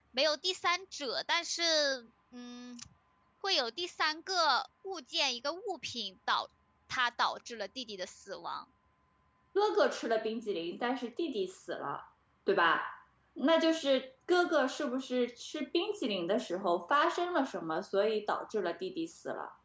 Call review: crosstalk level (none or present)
none